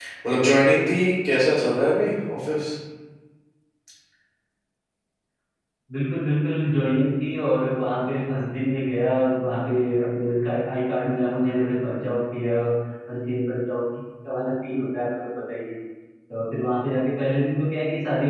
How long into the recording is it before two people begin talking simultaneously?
none

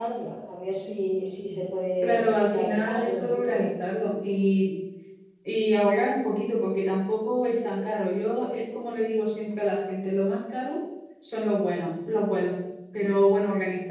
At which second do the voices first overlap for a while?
2.0 s

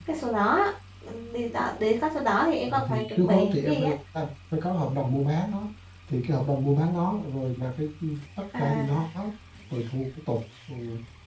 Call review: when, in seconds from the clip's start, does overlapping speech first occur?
2.7 s

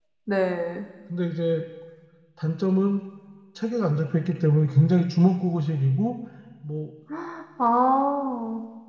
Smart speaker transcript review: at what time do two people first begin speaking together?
none

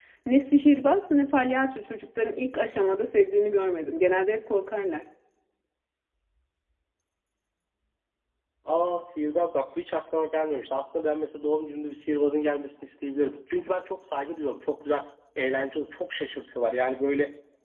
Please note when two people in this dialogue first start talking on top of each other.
none

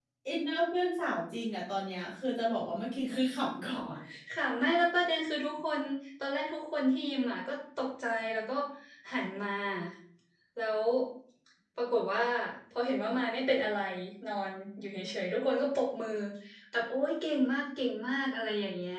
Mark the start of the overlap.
none

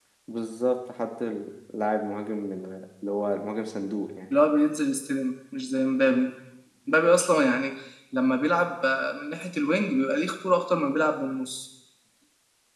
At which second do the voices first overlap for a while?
none

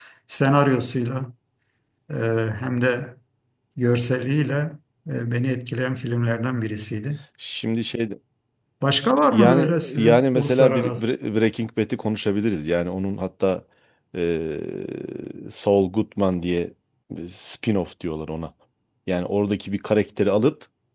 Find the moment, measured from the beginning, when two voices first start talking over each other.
9.3 s

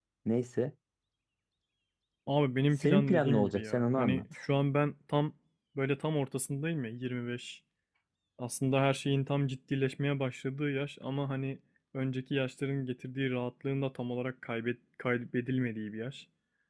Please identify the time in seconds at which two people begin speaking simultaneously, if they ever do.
2.8 s

